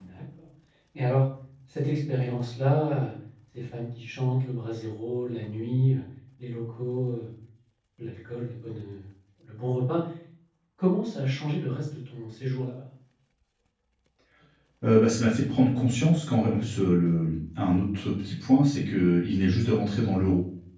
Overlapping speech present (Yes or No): No